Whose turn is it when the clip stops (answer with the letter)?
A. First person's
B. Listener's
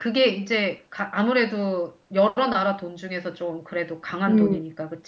B